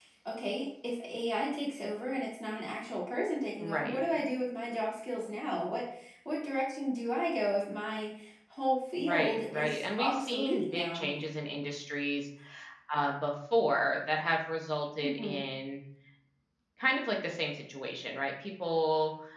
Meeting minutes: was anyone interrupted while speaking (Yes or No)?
Yes